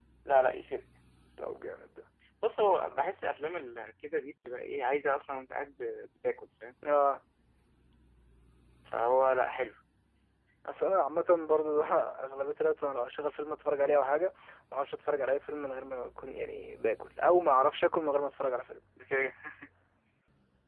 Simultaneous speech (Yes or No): No